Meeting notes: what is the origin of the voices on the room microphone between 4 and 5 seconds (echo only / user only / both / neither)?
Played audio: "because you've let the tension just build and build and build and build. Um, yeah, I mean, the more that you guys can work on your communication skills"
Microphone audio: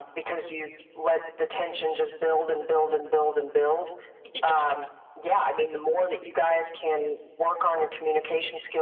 both